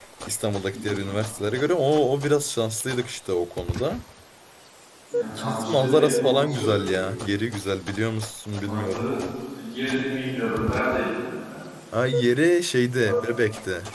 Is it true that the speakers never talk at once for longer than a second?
No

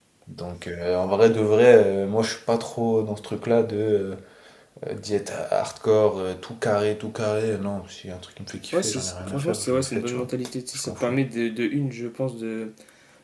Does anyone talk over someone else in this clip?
Yes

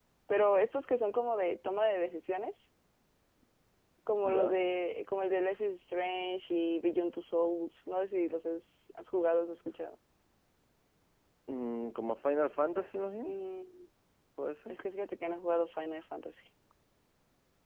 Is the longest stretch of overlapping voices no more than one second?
Yes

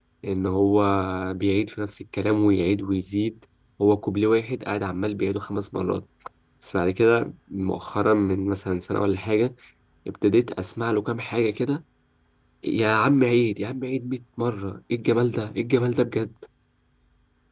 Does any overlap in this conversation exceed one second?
No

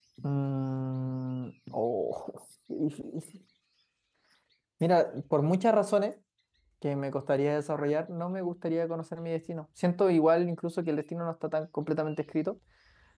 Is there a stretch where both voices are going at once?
No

